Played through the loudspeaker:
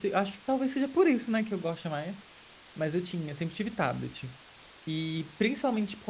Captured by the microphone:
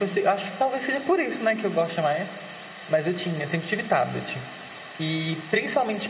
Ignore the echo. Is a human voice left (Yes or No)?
No